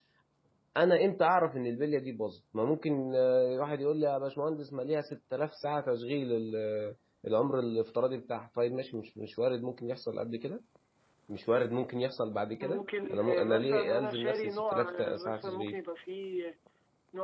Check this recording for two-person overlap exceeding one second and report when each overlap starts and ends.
12.6-15.8

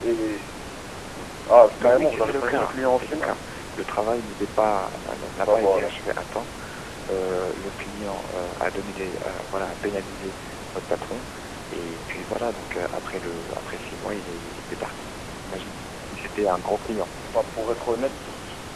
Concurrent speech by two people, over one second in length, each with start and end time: 1.8-3.4

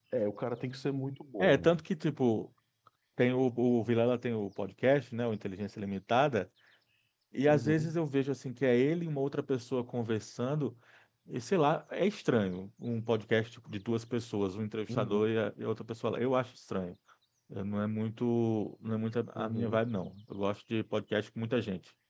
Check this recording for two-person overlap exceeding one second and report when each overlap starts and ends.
none

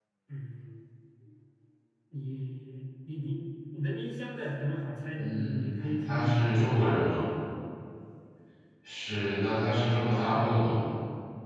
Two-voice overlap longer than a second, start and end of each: 5.2-7.0

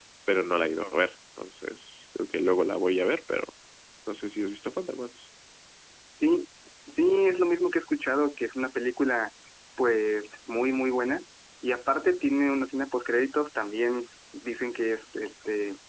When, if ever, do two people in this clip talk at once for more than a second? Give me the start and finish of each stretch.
none

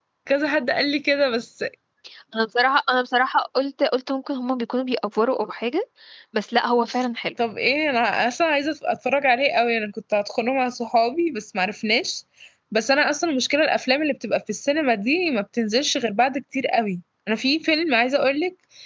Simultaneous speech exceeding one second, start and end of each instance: none

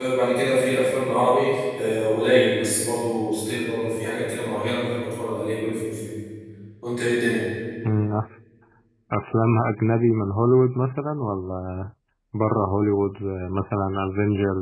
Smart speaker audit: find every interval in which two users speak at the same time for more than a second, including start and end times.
none

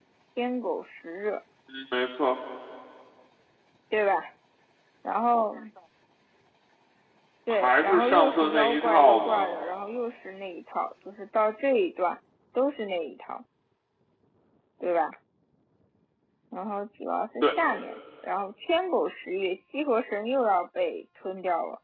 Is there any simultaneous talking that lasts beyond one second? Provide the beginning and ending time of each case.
7.5-9.5

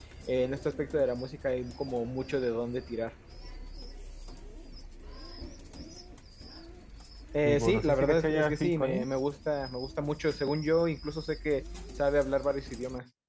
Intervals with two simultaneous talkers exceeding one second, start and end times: 7.4-9.1

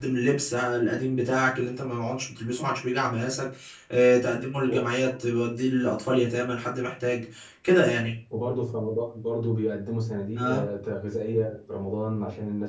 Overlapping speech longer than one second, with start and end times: none

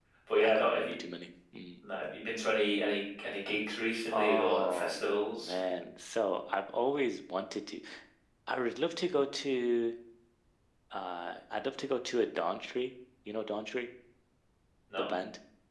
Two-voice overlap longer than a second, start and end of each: 4.1-5.6

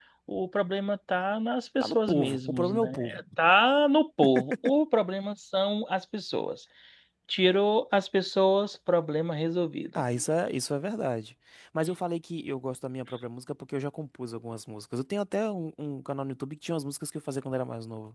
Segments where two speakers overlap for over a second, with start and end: 1.8-3.2

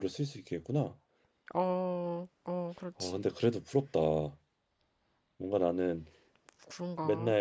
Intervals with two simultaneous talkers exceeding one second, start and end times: none

